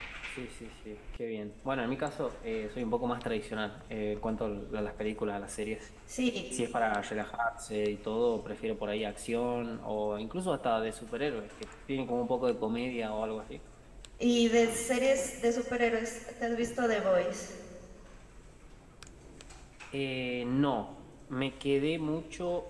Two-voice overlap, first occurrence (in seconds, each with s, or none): none